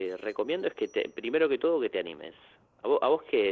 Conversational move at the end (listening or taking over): listening